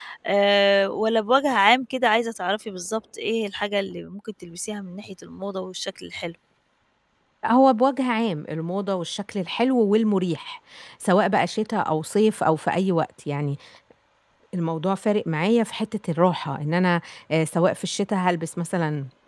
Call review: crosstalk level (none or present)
none